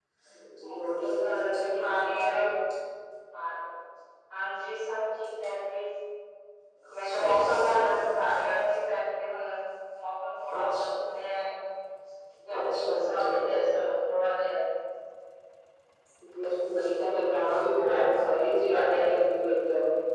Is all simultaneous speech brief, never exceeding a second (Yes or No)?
No